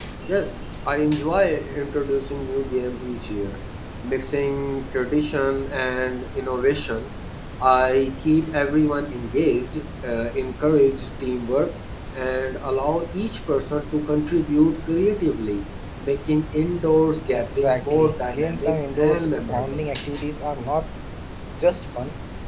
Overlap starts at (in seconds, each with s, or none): 17.3 s